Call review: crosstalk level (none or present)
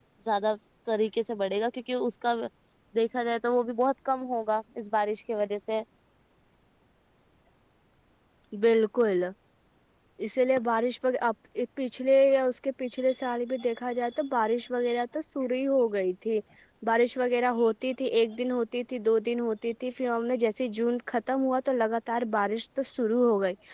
none